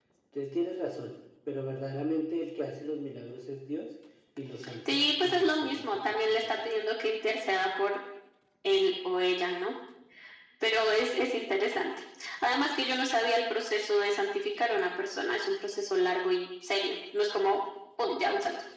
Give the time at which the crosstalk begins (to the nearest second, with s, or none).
5 s